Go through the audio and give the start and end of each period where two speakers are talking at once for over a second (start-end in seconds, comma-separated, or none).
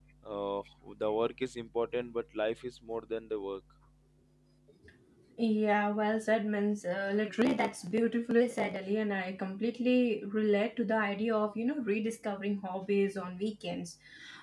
none